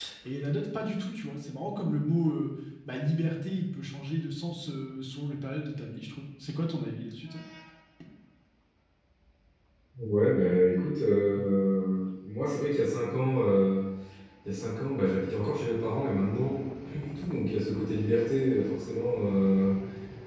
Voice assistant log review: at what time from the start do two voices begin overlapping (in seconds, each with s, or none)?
none